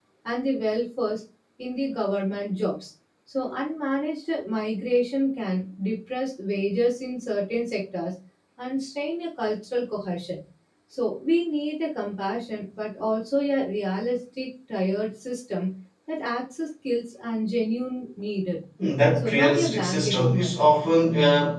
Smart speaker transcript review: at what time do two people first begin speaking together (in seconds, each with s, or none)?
19.1 s